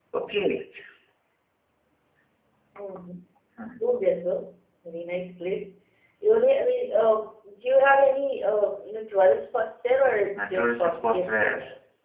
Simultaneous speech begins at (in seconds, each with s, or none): 10.3 s